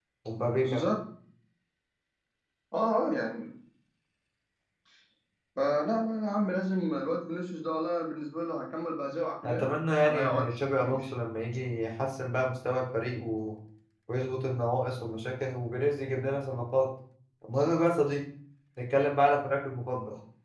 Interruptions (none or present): present